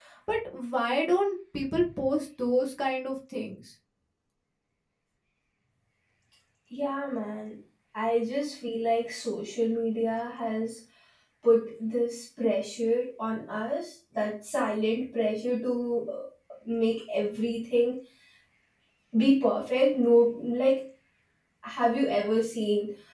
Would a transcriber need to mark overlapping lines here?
No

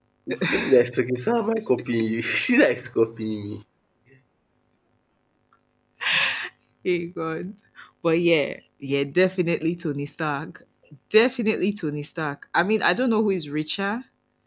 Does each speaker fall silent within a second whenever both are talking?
Yes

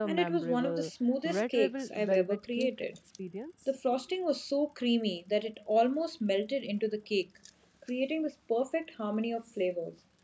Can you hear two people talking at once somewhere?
Yes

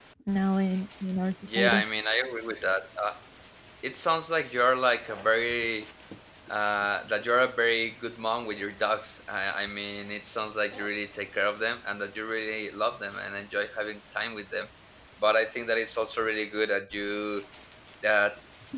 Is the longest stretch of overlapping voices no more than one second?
Yes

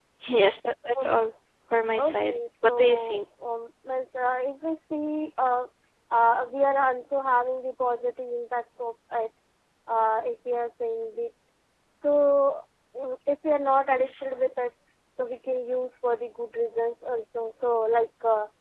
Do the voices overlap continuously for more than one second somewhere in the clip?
Yes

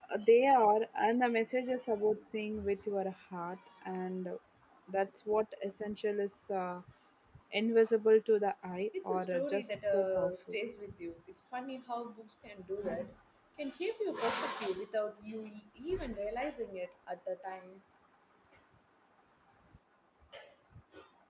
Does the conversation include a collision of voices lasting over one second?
Yes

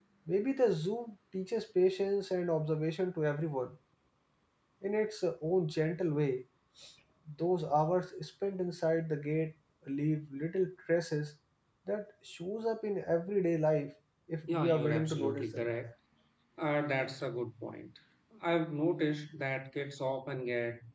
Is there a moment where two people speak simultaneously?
Yes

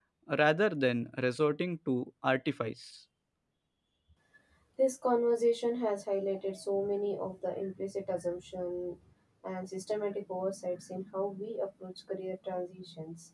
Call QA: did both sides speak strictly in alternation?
Yes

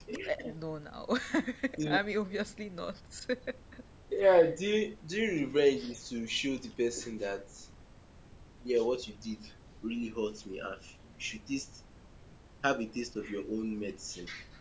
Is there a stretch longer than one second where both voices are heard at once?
No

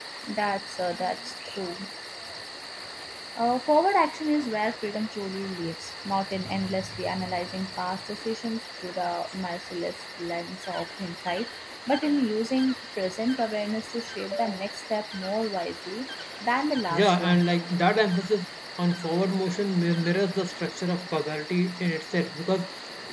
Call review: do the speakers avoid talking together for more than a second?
Yes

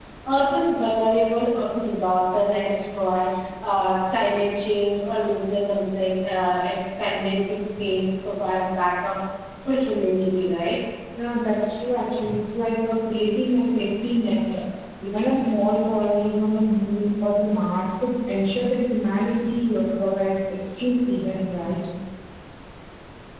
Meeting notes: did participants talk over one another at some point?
No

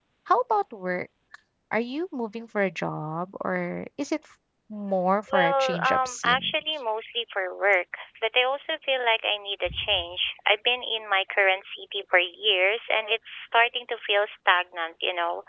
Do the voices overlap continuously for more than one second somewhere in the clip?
Yes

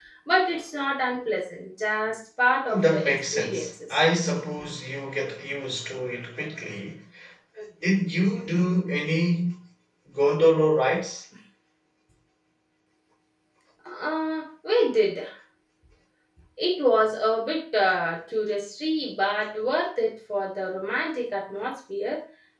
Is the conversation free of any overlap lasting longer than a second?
No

